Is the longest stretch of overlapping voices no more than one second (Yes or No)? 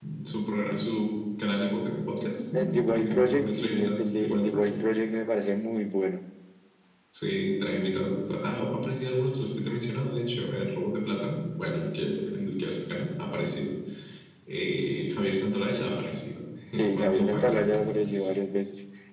No